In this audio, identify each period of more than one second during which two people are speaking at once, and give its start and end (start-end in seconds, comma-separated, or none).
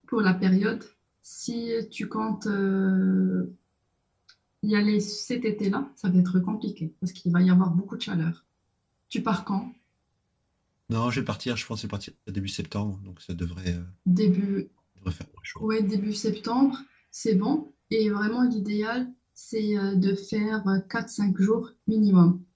none